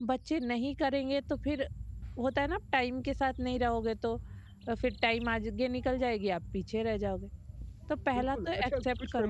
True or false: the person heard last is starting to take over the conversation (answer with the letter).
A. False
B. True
B